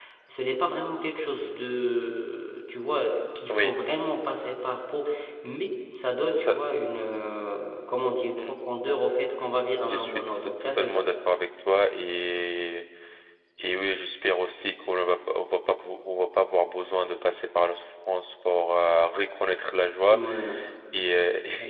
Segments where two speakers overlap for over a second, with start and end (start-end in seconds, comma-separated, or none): 9.8-11.1